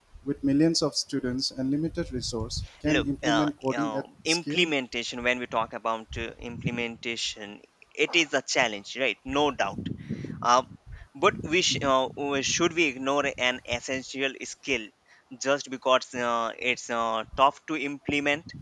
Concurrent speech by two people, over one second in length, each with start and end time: 2.9-4.7

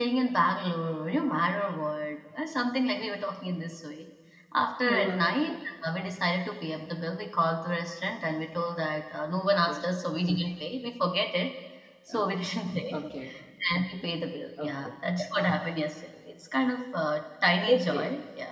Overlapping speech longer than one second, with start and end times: none

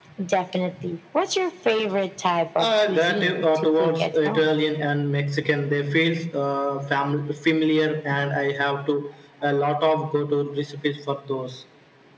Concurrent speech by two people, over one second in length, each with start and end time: 2.6-4.6

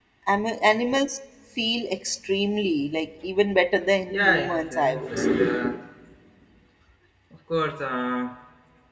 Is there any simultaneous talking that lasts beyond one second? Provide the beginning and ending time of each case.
4.1-5.4

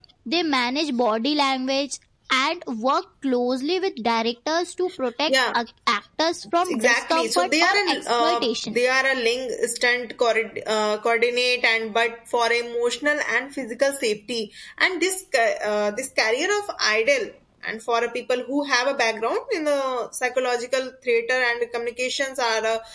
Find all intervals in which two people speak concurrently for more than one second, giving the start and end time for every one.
6.7-8.8

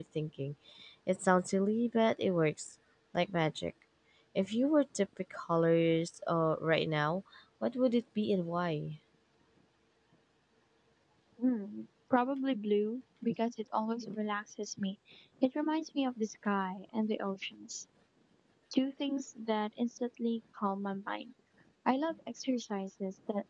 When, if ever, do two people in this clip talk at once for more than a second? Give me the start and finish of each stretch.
none

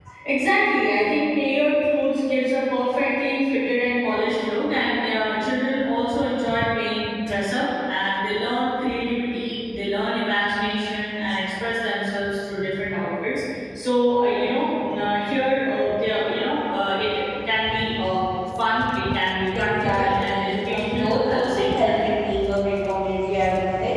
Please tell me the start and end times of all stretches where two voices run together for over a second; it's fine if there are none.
19.6-21.9

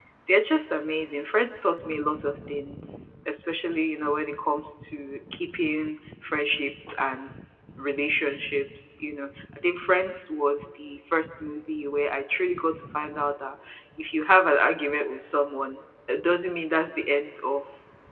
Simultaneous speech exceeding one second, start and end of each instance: none

